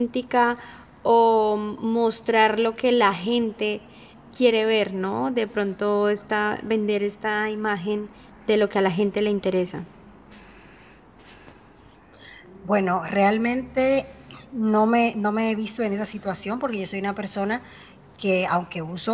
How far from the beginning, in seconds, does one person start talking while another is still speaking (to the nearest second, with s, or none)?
none